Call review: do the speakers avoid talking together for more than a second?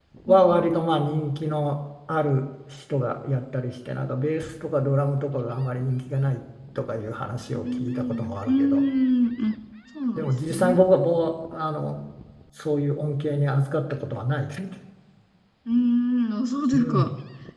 No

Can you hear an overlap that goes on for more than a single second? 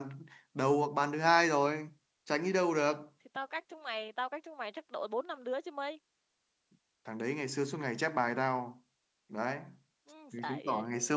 No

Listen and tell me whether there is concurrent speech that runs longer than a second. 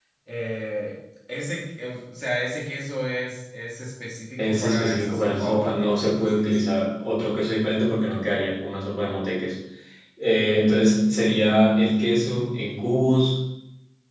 Yes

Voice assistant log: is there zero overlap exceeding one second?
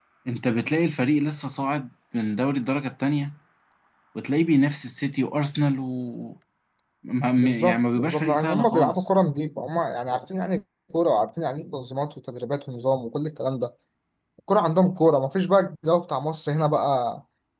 No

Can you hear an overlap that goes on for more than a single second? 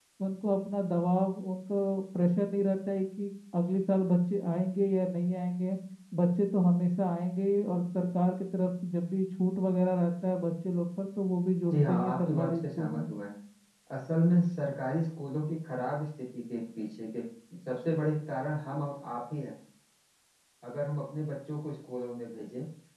Yes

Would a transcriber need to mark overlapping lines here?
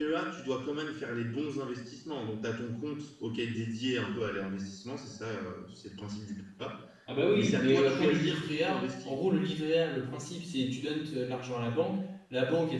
Yes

